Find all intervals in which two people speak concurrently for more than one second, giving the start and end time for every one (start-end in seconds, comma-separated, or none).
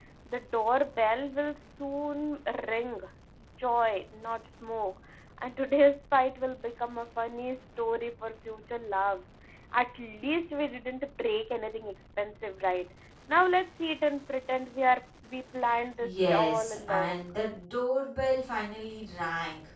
16.0-17.2